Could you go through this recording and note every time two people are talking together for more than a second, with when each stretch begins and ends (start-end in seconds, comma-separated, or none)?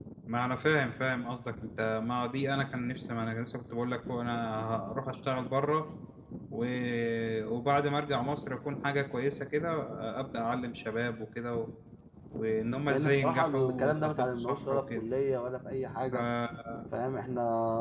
12.9-15.1